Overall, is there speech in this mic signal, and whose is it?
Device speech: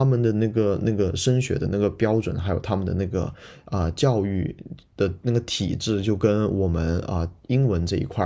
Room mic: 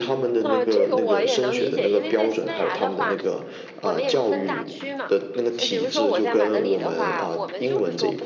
both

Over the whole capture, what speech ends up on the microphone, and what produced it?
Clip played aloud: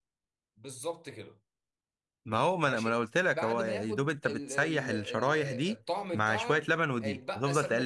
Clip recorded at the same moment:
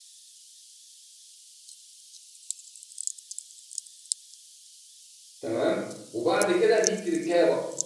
user only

